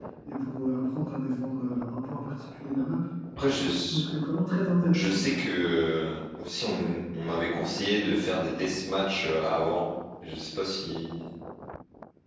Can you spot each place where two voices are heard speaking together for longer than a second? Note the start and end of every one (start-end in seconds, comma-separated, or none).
none